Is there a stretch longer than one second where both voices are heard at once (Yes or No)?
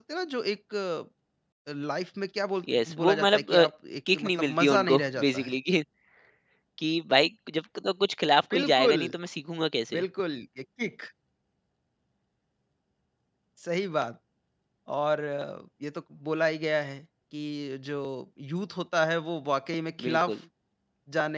Yes